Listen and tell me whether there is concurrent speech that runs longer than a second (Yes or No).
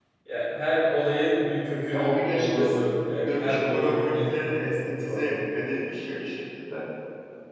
Yes